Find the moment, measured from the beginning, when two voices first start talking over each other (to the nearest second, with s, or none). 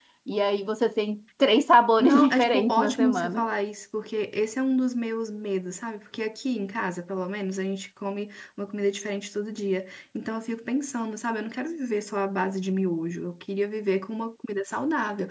2 s